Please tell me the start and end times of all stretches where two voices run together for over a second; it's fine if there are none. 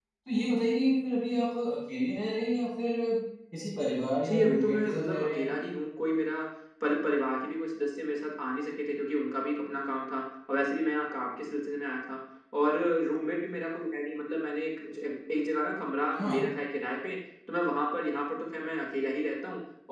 4.2-5.6

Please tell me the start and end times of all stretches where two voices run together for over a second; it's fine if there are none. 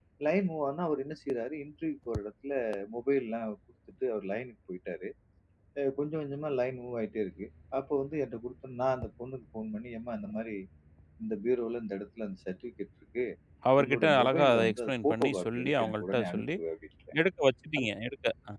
13.8-16.4

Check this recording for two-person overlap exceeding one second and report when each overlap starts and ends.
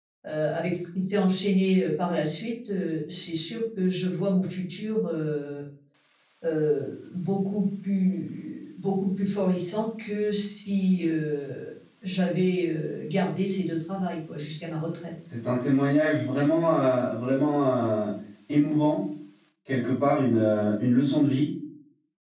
none

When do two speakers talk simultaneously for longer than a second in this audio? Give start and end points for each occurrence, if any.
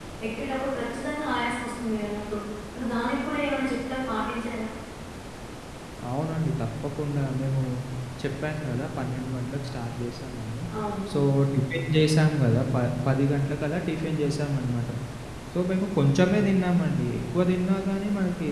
none

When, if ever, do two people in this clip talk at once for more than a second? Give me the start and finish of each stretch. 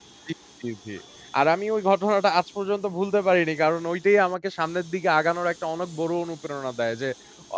none

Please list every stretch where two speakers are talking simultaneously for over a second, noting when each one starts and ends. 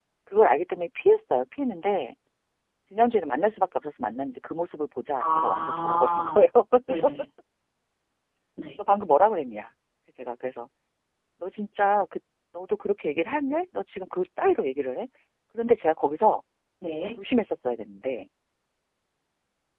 5.2-6.4

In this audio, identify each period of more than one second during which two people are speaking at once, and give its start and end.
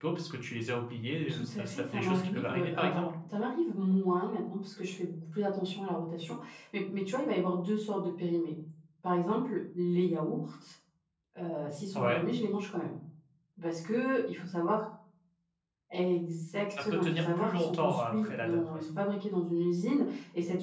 1.3-3.0, 16.7-18.6

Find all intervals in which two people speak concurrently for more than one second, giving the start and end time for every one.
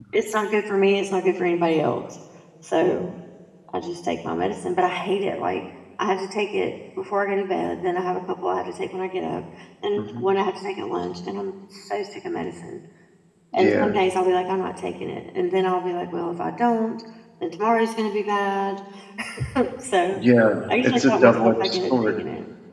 20.7-22.1

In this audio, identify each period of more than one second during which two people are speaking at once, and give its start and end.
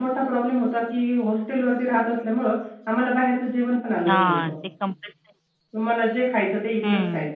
none

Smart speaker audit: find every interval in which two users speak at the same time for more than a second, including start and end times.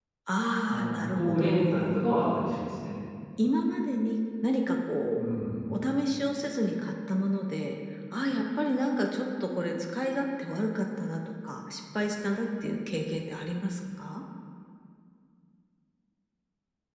0.7-2.0

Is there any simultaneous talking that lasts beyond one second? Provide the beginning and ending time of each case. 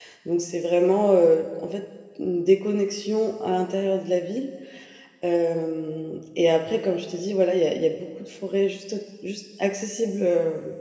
none

